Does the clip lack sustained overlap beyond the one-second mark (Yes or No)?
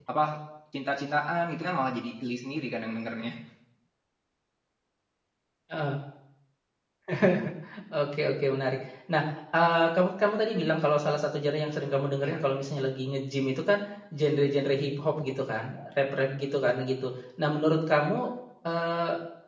Yes